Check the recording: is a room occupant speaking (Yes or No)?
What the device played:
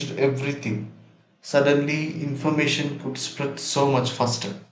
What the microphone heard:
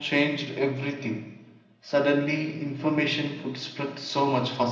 No